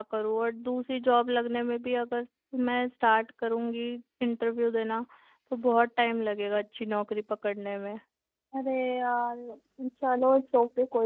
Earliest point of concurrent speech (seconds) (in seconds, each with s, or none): none